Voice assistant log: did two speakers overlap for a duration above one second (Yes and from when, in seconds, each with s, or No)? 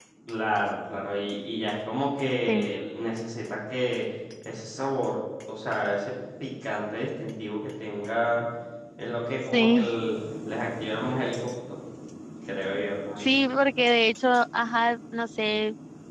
No